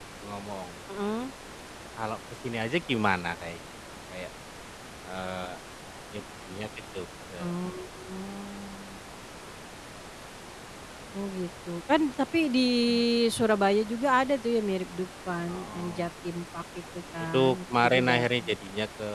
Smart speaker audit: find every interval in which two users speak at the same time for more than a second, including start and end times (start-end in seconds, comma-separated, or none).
17.3-18.5